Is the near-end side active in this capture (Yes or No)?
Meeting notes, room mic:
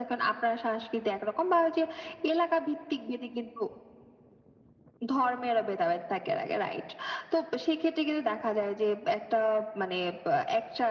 No